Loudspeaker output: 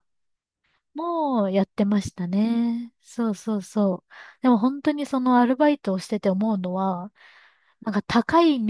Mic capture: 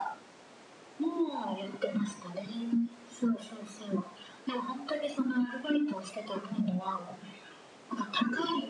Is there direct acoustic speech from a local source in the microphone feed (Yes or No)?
No